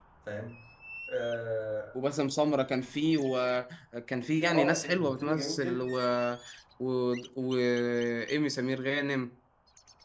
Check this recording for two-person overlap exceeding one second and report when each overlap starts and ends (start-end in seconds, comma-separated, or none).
4.4-5.8